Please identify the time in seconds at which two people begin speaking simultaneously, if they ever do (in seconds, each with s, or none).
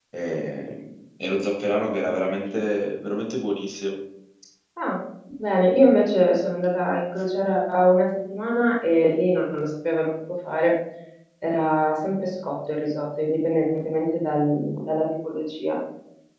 none